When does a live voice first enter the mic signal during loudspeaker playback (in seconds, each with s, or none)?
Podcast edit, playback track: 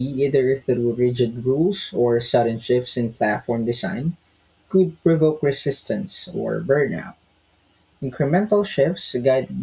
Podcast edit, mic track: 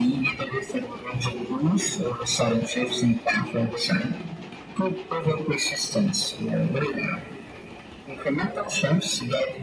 none